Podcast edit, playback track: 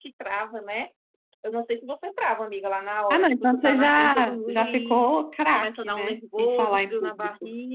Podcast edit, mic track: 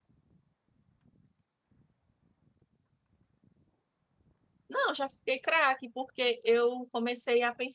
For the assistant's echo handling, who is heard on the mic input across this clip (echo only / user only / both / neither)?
user only